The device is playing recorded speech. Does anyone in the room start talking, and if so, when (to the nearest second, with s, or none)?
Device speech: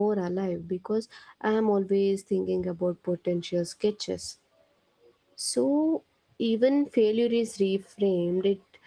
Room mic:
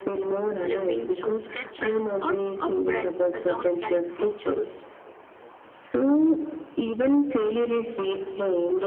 0 s